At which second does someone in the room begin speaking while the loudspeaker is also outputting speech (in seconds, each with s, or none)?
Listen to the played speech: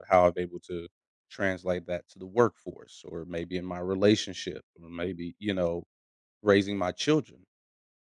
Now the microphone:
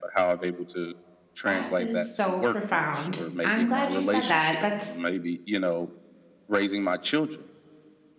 1.4 s